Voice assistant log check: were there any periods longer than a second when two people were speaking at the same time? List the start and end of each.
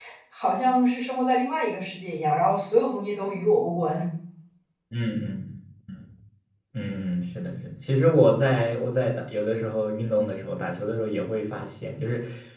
none

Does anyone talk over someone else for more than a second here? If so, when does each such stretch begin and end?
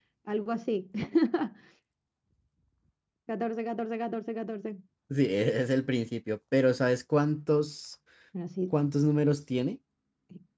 none

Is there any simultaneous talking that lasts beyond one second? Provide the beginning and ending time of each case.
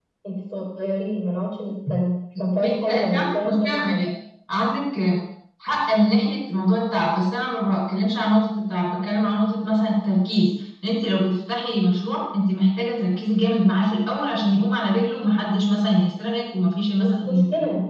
2.6-4.0

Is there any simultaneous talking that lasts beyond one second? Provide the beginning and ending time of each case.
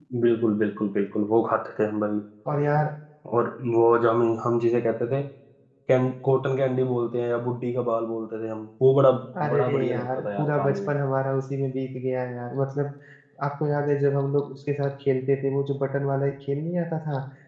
9.5-10.9

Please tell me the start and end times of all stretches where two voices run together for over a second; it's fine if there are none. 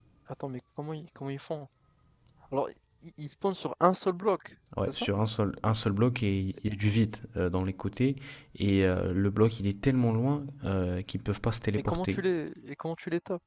none

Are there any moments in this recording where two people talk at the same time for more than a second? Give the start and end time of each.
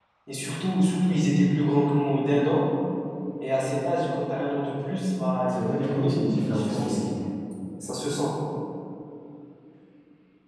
5.5-7.0

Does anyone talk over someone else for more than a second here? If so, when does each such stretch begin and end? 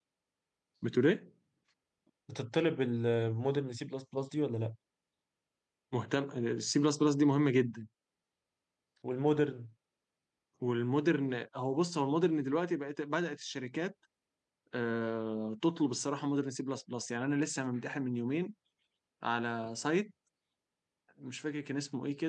none

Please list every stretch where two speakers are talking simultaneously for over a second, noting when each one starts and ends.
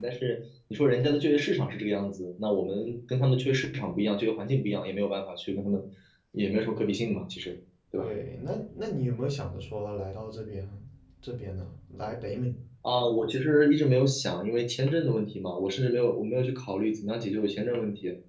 none

